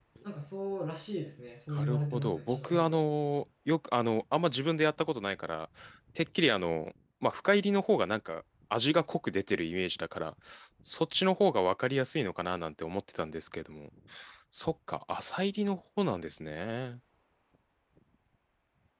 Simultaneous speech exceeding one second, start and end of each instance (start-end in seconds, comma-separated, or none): 1.8-3.0